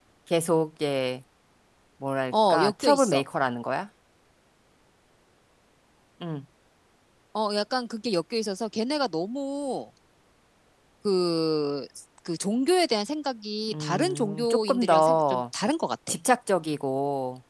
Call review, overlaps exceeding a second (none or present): present